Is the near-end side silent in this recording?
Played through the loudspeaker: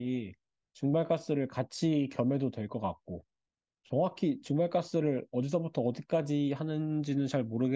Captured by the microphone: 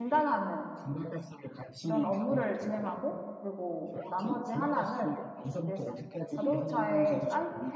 No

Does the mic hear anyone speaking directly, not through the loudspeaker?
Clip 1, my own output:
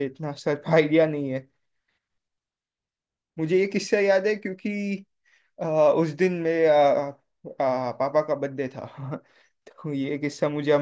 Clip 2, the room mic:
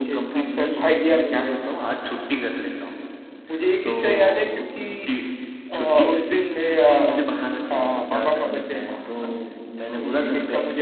Yes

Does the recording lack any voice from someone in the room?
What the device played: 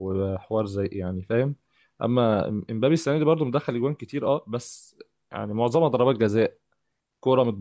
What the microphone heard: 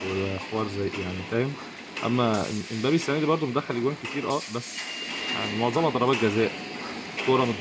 Yes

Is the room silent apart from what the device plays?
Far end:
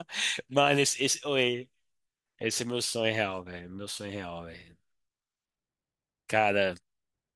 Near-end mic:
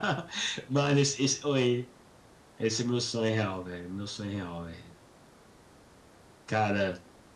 Yes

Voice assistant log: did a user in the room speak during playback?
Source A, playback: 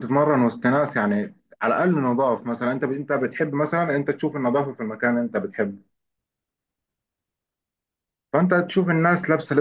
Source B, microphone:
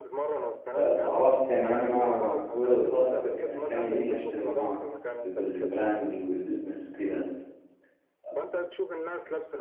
Yes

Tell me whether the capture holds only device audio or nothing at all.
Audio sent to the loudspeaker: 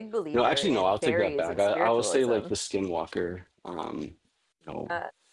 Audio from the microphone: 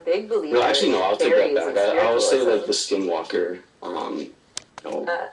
Yes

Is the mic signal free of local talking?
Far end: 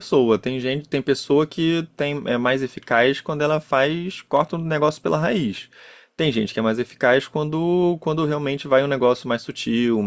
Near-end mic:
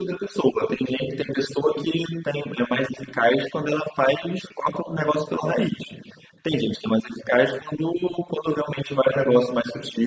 Yes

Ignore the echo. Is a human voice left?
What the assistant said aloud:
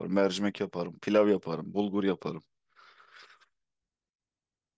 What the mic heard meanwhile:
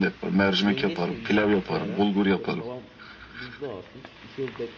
Yes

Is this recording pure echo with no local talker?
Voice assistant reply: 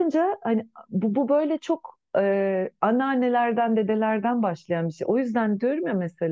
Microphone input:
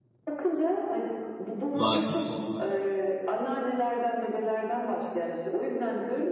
No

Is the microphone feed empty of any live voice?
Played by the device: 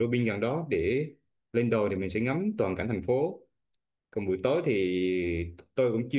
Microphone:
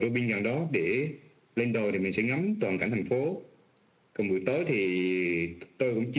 Yes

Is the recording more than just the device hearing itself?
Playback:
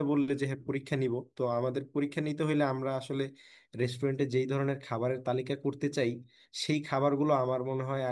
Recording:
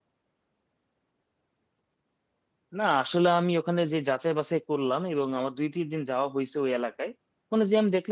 Yes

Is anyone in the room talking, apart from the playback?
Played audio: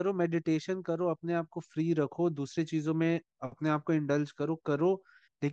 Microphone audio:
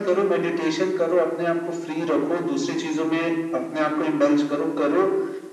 No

